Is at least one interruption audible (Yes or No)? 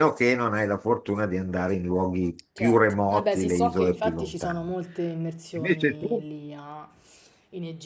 Yes